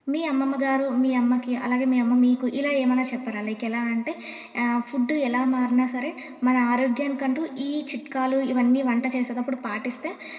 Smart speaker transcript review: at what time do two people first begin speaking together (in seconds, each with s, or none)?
none